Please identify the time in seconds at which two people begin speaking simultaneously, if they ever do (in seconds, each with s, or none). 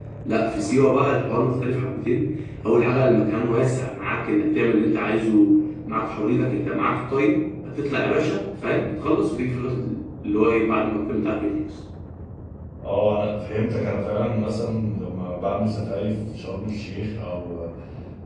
none